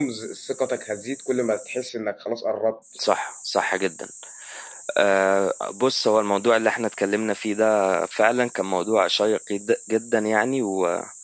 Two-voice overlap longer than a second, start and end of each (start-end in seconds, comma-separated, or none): none